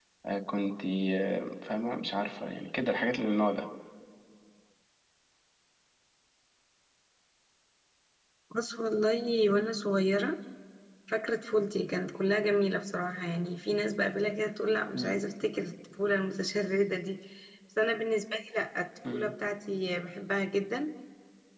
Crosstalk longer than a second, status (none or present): none